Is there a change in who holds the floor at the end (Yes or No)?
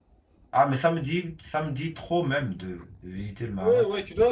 Yes